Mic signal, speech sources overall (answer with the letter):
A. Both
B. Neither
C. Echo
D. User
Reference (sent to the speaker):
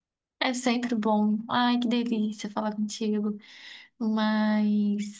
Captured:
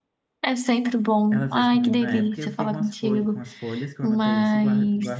A